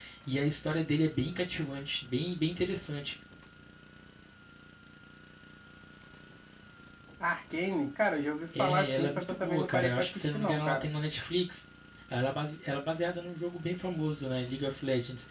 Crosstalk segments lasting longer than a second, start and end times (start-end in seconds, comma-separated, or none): 8.6-10.9